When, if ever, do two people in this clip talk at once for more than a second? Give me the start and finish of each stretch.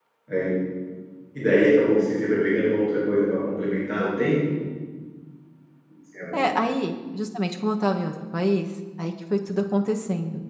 none

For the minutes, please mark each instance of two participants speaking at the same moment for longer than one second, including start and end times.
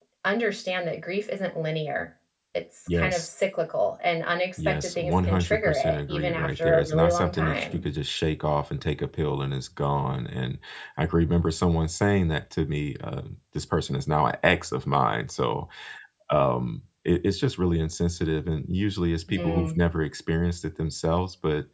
4.6-7.8

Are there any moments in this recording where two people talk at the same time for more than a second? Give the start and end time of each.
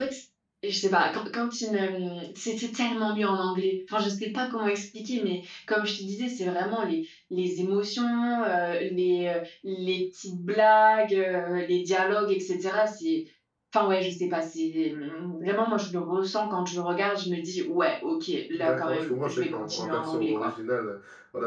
18.6-20.5

